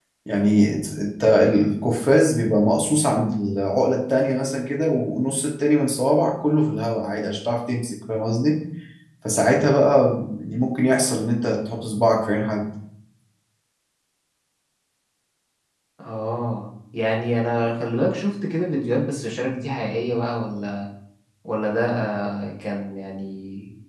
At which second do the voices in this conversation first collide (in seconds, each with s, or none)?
none